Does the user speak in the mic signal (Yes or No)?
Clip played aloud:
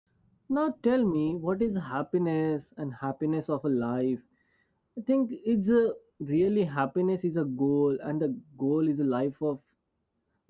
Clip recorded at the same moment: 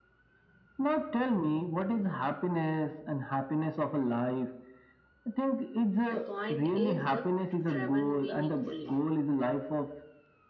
Yes